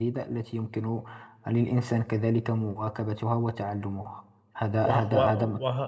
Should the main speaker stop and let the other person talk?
Yes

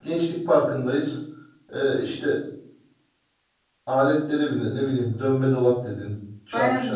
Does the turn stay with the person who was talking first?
No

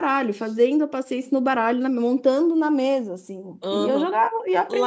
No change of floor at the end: No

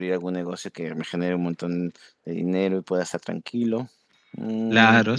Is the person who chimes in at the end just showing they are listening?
No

